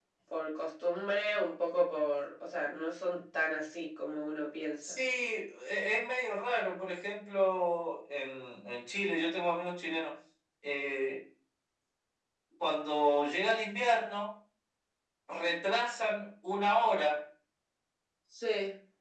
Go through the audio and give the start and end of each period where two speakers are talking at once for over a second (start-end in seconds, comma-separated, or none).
none